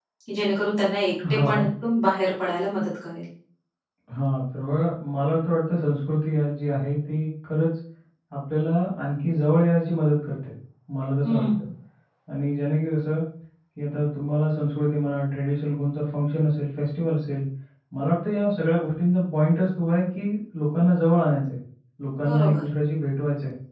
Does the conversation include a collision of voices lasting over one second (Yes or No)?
No